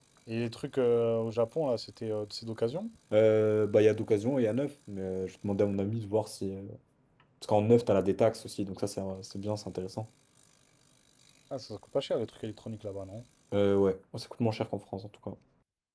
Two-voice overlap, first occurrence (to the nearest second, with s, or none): none